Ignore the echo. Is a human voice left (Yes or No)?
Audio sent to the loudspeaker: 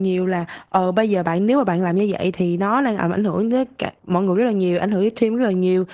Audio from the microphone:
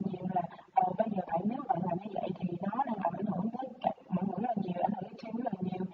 No